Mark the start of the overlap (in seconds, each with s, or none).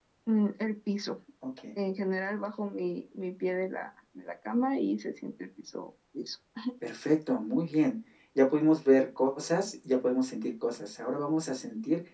none